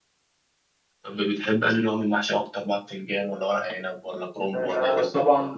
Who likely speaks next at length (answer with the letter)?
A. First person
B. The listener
B